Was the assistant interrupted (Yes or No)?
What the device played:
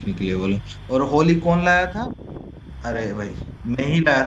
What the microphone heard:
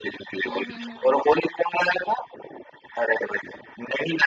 Yes